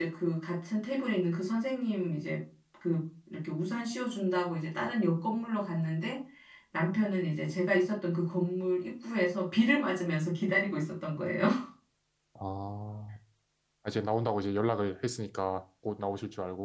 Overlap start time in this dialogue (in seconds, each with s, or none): none